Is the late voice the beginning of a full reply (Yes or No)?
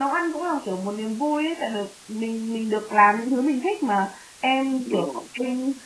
No